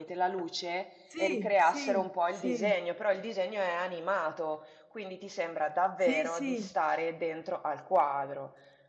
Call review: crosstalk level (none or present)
present